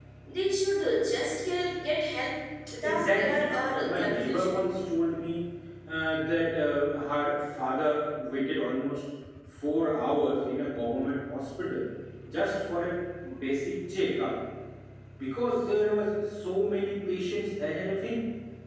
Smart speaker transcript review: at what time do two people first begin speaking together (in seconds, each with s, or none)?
2.8 s